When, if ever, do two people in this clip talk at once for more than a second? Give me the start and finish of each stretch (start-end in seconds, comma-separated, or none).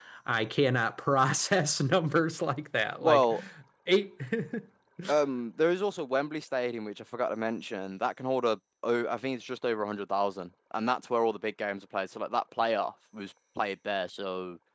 none